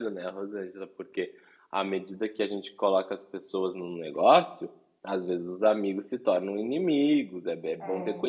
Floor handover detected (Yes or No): Yes